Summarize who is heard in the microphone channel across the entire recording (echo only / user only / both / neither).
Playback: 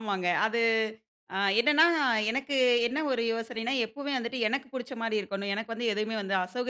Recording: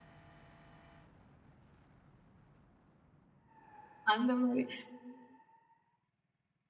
user only